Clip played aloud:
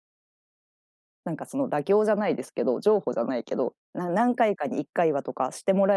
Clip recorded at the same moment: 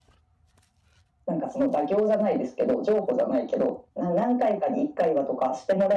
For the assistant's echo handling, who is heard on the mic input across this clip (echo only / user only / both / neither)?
echo only